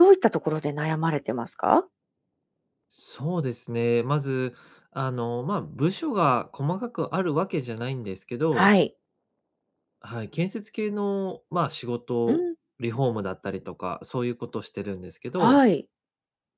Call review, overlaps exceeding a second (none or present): none